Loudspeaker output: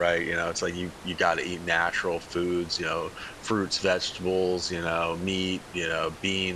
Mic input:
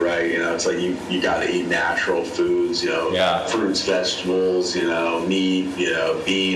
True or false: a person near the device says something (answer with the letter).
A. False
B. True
B